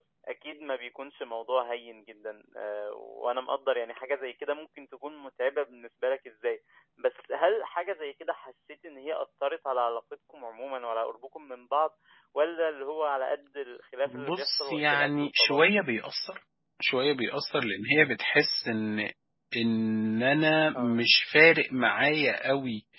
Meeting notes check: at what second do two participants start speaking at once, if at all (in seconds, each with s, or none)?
14.1 s